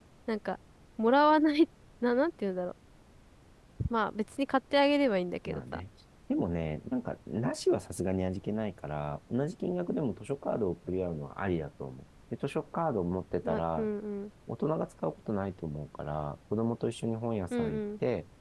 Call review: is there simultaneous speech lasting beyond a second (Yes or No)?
No